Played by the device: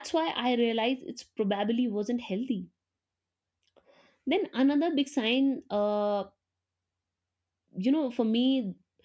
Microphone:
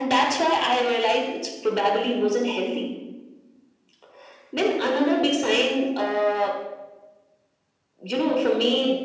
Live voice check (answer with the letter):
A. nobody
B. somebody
A